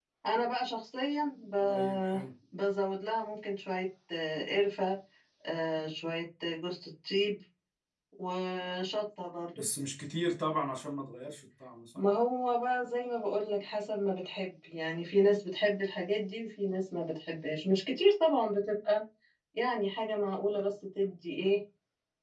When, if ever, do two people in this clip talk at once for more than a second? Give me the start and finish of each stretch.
none

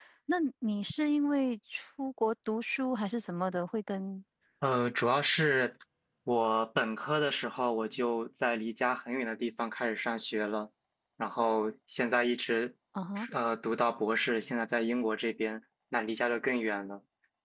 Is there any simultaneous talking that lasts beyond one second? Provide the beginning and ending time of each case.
none

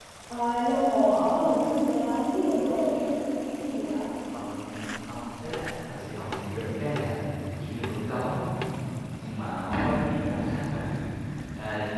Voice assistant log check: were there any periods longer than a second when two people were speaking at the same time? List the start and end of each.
none

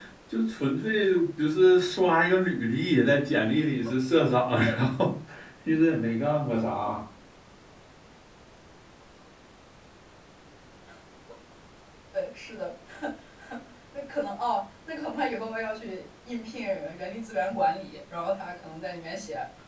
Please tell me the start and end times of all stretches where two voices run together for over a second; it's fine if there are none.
none

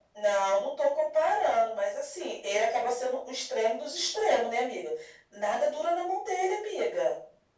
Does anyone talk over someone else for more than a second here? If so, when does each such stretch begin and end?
none

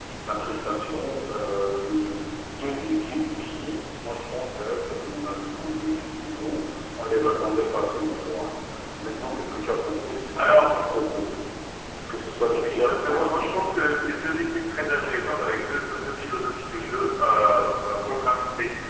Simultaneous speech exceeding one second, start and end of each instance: 12.4-13.7

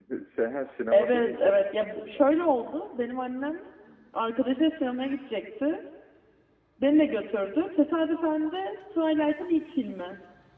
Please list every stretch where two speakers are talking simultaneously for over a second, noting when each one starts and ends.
0.9-2.2

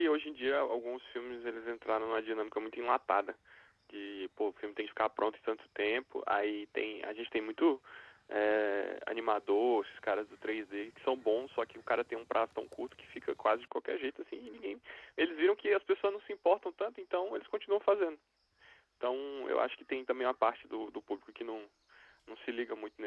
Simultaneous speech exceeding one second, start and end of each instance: none

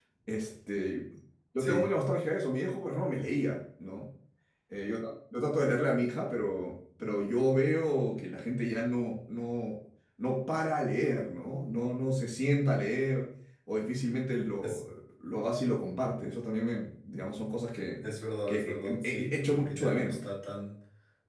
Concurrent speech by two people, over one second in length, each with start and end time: 18.5-20.2

